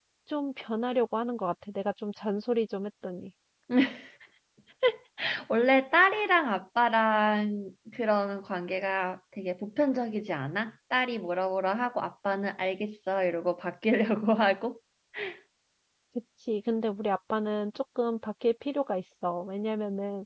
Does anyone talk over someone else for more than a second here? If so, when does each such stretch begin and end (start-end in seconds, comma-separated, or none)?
none